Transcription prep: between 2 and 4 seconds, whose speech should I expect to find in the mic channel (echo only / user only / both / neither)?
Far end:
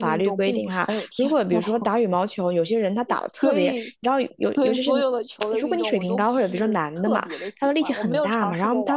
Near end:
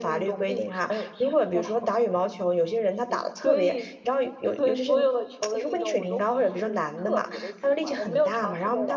echo only